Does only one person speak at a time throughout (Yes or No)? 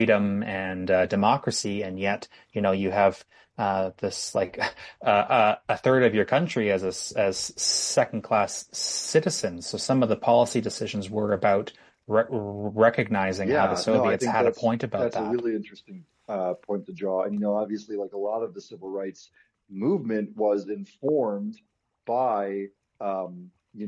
No